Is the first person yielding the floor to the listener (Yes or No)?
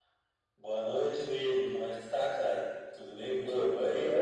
Yes